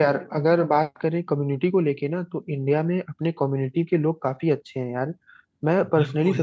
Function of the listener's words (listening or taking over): listening